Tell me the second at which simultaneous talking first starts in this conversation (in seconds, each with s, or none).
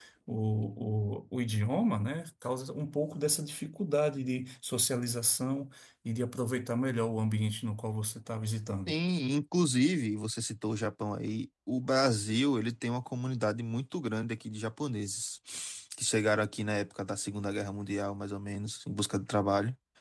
none